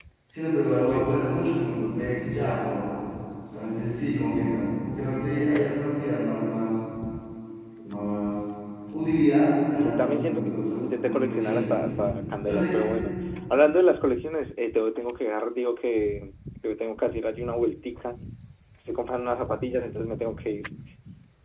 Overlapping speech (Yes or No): Yes